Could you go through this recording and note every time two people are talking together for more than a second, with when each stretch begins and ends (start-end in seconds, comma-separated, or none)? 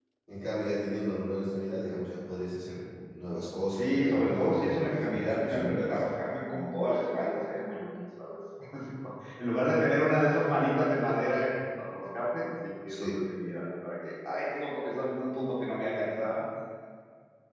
3.8-6.0